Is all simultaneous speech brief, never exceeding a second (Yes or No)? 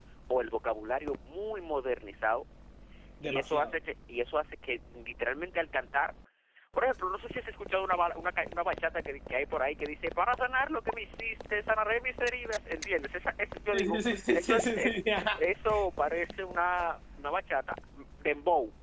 No